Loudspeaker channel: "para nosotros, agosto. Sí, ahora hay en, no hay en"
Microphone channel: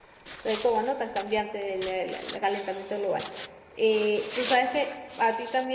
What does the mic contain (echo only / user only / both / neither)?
user only